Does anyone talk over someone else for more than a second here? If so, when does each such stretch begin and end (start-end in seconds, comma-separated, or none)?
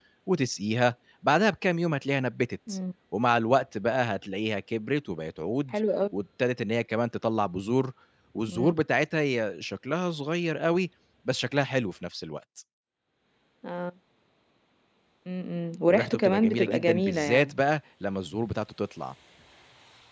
15.9-17.5